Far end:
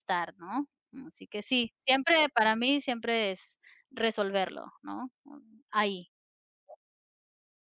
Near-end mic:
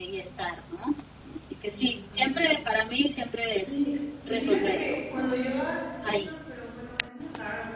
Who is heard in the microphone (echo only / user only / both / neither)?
both